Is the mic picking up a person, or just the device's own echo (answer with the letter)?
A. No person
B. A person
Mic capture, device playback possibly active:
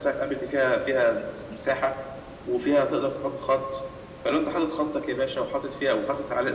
A